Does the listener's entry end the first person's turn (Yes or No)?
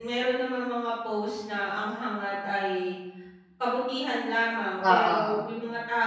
No